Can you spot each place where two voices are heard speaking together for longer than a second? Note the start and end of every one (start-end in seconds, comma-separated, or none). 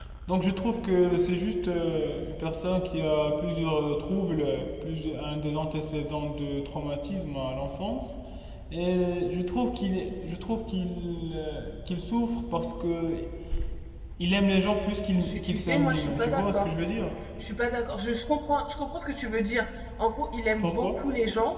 15.2-16.7